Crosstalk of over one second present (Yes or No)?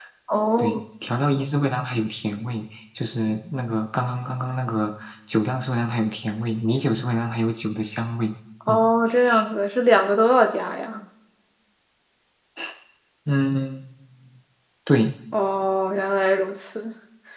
No